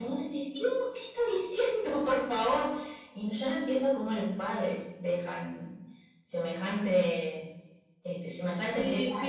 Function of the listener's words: taking over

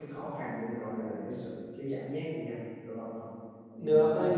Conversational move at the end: taking over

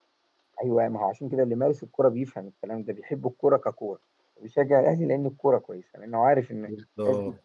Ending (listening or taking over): taking over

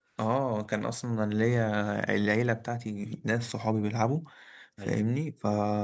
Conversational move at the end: listening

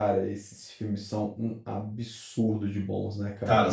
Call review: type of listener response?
taking over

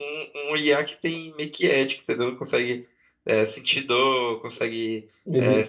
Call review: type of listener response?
listening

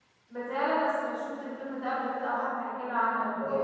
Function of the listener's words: taking over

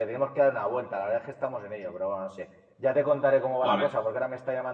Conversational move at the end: listening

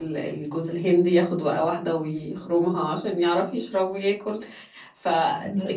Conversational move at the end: listening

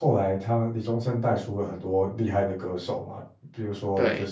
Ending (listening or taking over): listening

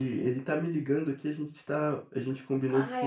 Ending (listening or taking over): listening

